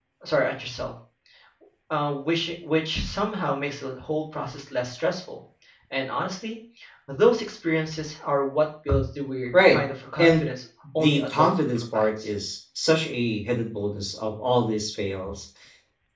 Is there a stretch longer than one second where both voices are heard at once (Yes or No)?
Yes